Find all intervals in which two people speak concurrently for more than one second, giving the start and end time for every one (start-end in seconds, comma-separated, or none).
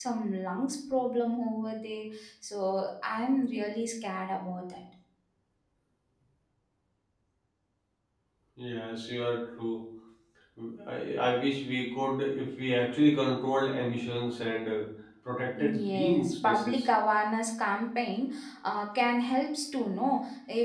15.6-16.9